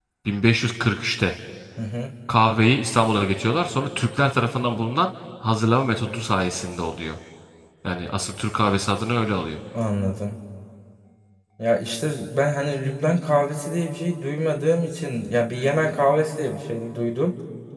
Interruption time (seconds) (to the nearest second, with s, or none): none